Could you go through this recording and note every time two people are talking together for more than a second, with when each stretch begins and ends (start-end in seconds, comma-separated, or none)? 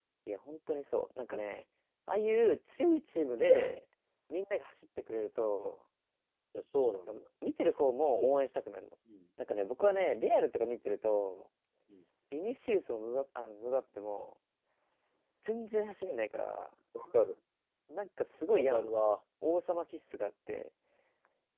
none